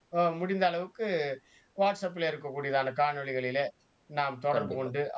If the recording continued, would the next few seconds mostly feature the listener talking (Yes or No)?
No